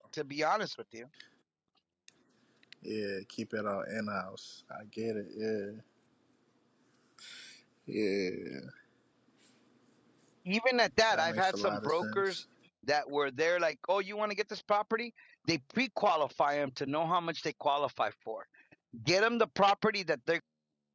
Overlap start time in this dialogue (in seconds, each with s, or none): 11.1 s